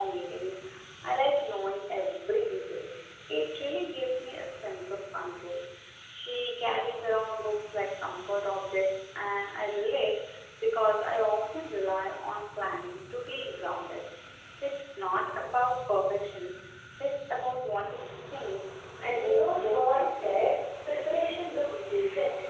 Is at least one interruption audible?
Yes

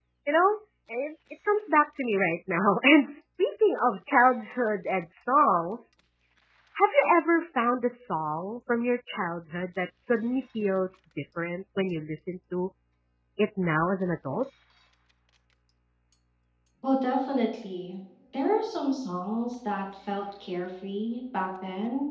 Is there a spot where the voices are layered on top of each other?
No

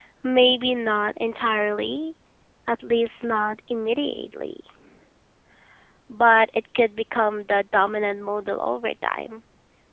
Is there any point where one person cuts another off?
No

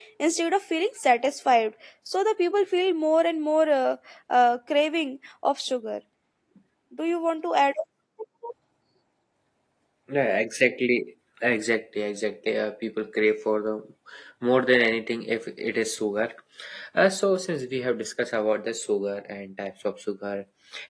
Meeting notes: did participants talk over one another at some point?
No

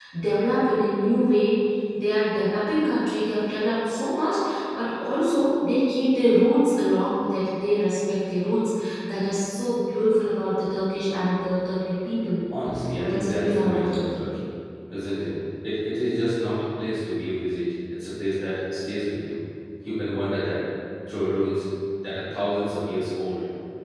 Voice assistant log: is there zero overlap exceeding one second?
No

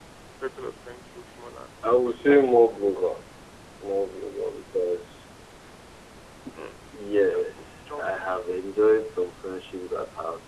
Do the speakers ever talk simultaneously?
Yes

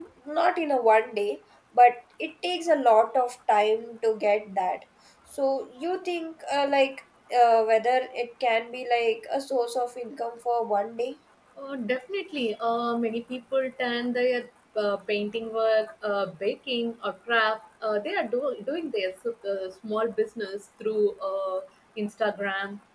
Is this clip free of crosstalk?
Yes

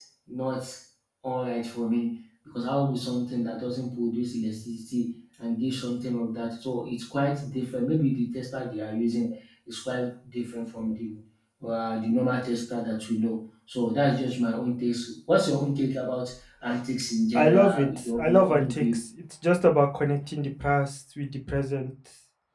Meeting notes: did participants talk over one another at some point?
Yes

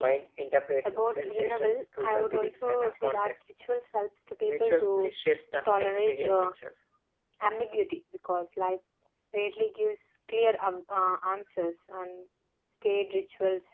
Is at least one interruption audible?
Yes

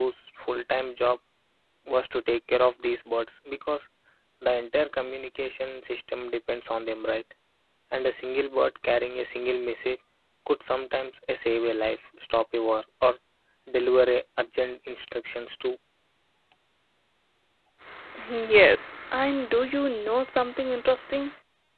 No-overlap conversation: Yes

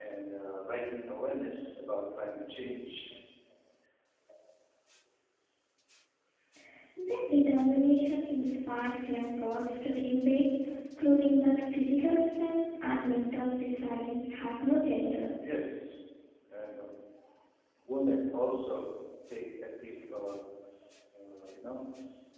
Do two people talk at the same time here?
No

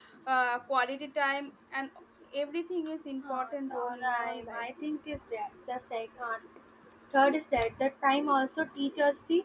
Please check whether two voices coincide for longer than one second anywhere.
Yes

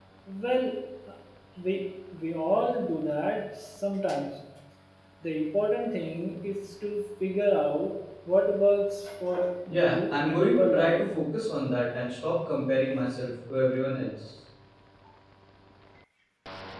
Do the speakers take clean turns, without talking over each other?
No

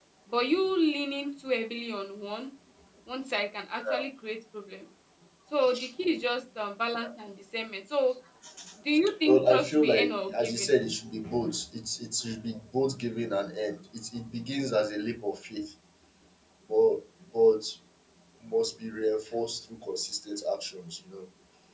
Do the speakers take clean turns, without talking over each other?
No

